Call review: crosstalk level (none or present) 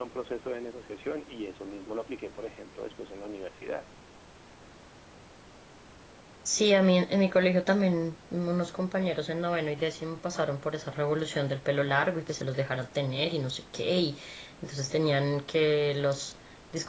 none